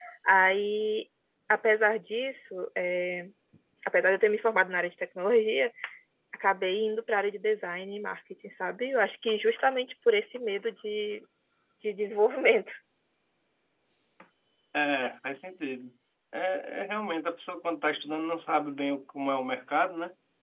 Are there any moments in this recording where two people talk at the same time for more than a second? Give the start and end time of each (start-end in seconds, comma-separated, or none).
none